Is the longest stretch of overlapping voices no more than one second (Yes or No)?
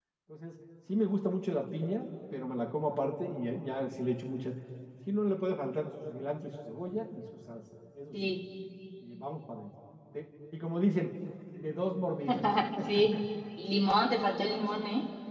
Yes